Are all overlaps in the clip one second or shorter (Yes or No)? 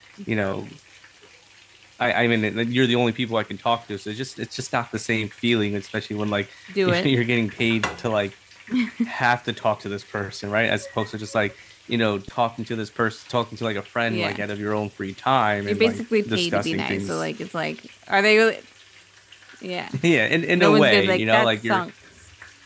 No